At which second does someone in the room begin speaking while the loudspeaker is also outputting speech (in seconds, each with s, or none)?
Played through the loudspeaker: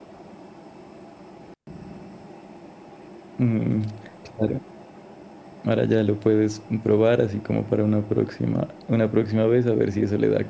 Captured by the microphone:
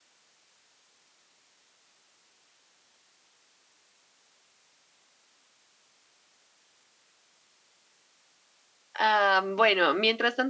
9.0 s